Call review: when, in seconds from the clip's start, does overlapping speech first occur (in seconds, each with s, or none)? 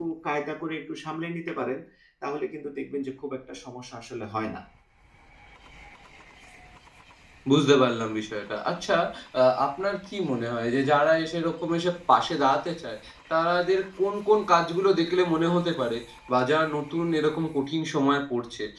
none